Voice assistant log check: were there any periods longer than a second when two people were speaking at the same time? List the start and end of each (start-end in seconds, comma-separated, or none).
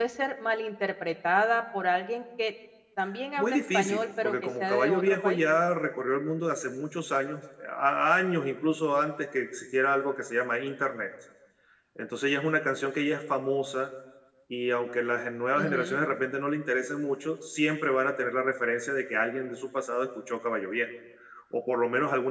3.4-5.4